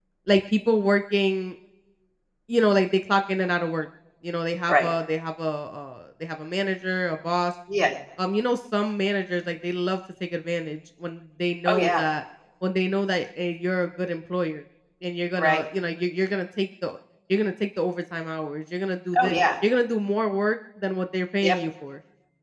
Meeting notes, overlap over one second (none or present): none